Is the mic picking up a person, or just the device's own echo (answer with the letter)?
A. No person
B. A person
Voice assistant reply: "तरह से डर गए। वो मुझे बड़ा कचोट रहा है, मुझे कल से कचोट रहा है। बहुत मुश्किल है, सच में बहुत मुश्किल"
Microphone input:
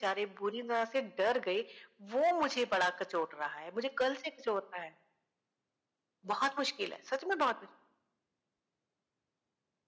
A